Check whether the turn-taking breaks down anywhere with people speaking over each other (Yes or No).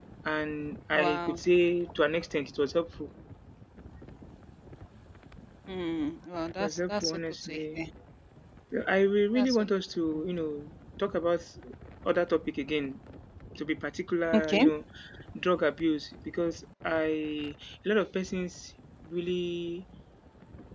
Yes